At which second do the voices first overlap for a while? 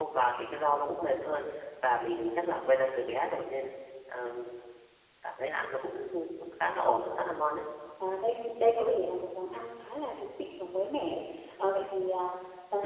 none

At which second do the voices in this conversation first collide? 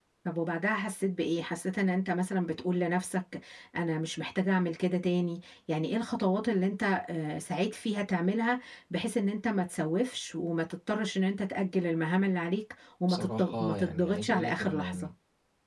13.1 s

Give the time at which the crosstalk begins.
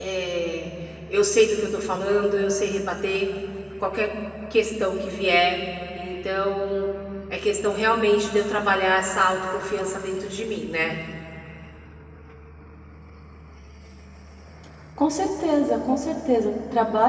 none

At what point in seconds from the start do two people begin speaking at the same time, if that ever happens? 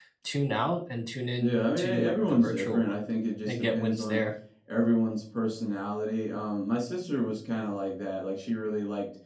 1.4 s

